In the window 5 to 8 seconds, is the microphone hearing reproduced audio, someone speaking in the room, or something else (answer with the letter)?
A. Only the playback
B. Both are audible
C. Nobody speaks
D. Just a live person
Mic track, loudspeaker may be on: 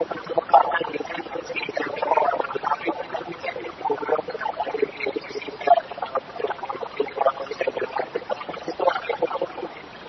A